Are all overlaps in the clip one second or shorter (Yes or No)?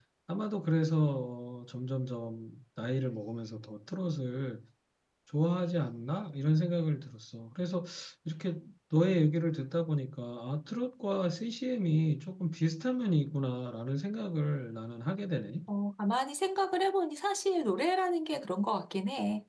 Yes